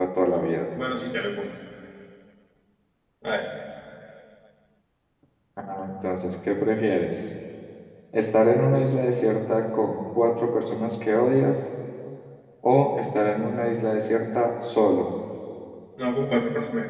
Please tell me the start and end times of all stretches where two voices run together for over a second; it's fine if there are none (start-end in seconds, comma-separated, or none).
none